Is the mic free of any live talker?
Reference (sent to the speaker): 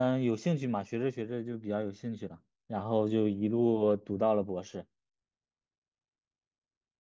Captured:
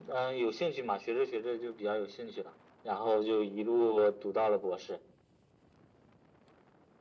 Yes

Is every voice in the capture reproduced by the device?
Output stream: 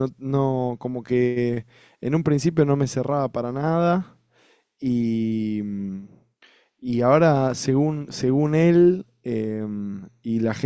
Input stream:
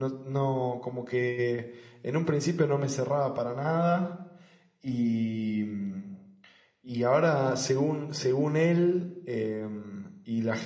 Yes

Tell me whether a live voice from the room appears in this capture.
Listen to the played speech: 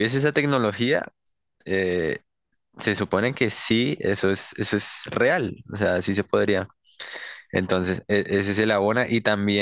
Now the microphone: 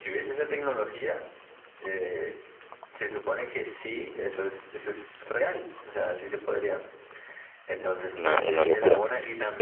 Yes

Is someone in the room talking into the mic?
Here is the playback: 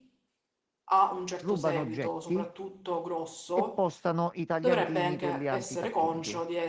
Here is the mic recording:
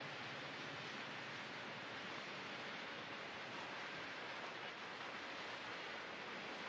No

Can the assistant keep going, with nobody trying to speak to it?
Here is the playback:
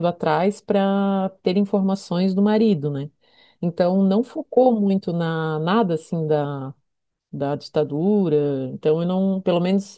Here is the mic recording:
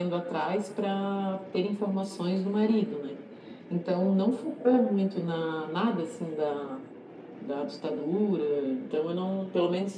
Yes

